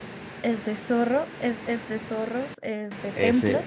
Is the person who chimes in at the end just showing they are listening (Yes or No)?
Yes